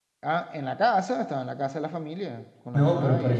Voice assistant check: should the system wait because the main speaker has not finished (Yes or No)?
No